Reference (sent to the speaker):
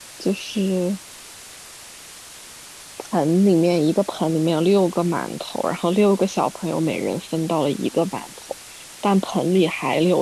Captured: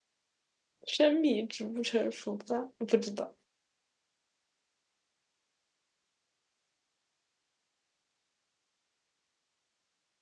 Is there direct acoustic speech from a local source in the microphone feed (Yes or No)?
Yes